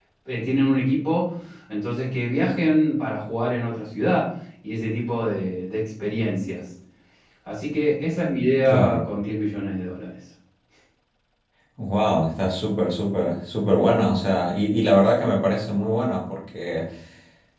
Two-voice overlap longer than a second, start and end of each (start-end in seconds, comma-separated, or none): none